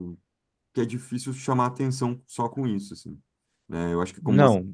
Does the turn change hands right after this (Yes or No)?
No